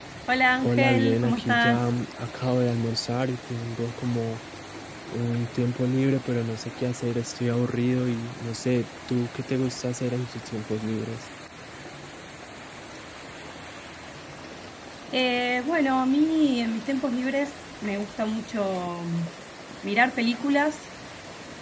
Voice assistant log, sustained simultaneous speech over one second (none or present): present